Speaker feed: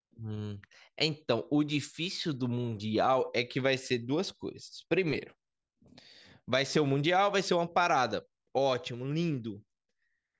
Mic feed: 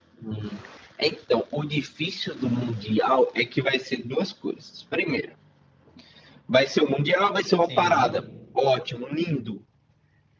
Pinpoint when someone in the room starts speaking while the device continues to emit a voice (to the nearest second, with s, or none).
8 s